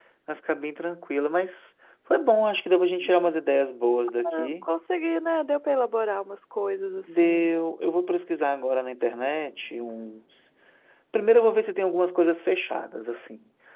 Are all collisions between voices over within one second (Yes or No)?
Yes